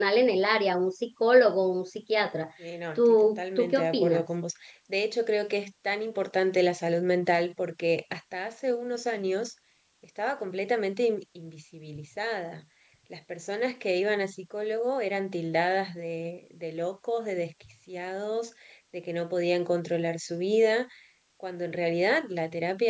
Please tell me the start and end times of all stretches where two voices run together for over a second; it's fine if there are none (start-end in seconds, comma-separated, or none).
3.0-4.2